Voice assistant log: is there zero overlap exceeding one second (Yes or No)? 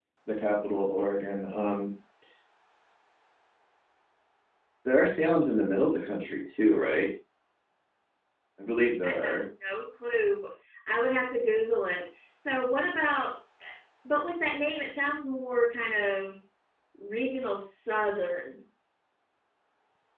Yes